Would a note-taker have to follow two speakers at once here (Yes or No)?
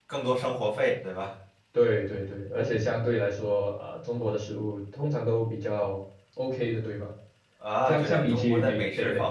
Yes